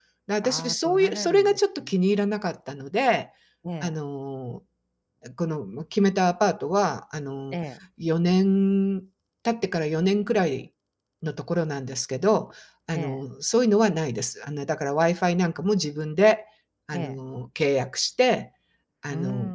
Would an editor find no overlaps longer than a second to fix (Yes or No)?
No